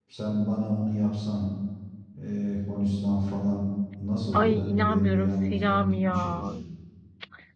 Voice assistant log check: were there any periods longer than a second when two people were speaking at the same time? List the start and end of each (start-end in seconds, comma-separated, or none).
4.3-6.4